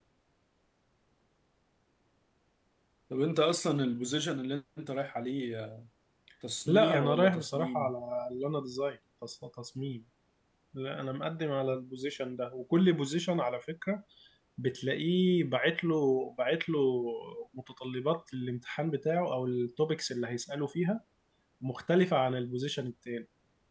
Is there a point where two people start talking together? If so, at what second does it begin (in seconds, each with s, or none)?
6.7 s